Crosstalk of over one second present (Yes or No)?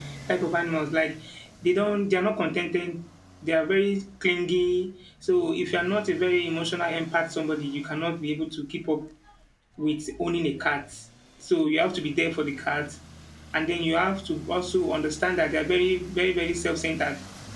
No